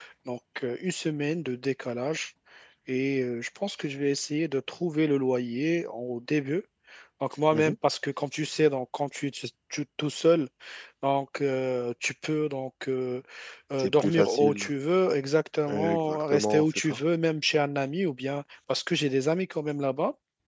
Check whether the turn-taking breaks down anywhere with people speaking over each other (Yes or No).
Yes